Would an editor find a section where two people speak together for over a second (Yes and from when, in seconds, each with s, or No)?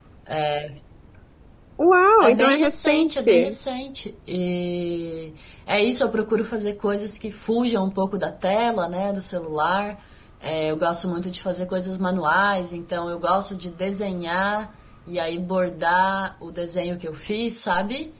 Yes, from 2.2 s